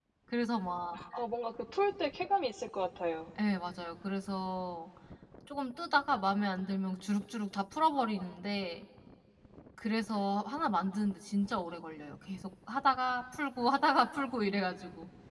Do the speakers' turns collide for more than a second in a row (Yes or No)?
No